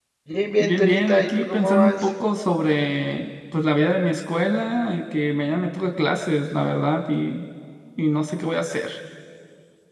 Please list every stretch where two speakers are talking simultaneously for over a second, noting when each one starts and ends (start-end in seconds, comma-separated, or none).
0.6-2.1